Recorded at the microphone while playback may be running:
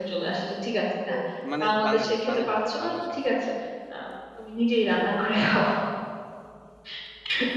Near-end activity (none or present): present